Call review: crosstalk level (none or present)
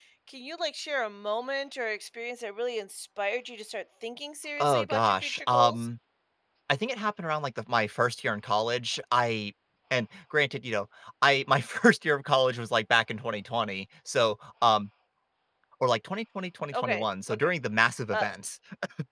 present